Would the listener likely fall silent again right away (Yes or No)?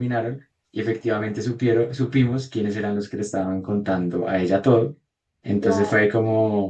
Yes